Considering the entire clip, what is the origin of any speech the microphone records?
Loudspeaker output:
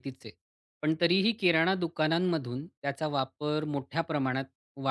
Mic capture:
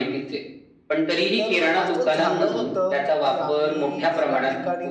both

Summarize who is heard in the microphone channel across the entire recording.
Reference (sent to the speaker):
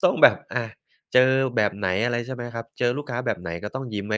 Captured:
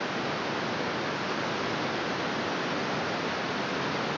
neither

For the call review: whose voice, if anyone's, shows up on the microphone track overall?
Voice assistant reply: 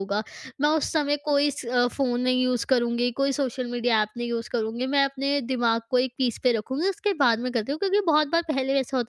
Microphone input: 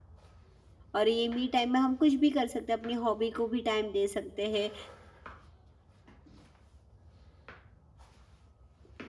user only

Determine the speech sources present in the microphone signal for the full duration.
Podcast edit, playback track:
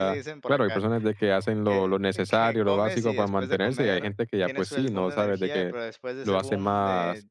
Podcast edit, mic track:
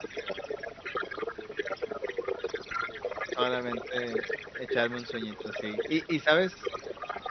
both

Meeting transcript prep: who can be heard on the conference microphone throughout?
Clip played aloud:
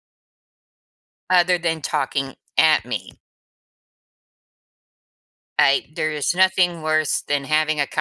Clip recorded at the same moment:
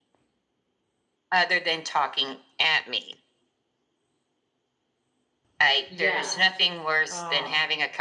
both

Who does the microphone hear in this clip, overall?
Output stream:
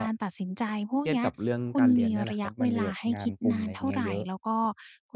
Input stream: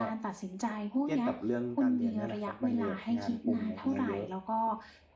echo only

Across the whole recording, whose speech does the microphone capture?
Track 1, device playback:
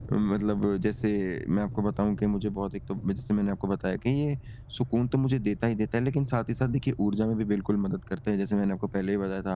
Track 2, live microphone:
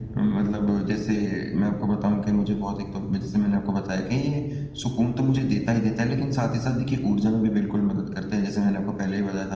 echo only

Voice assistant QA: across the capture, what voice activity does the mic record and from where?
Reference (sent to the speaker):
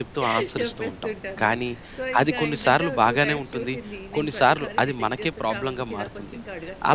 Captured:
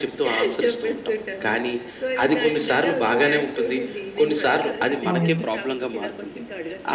both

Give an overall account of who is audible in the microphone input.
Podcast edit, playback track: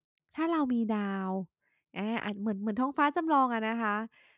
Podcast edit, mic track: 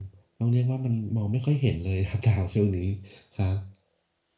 user only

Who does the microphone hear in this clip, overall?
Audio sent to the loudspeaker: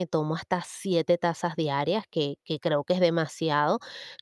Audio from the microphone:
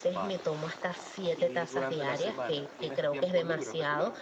both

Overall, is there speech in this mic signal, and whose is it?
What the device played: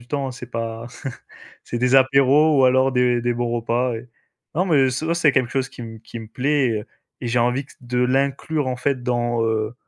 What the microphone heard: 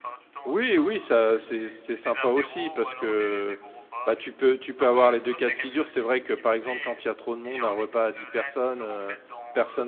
both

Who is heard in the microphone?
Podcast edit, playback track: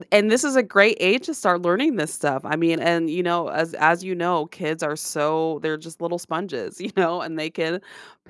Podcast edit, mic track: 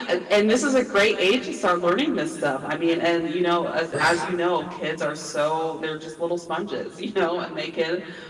both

